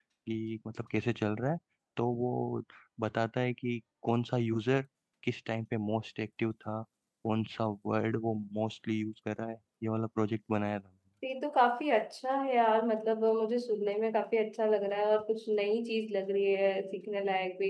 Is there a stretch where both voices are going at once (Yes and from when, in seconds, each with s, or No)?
No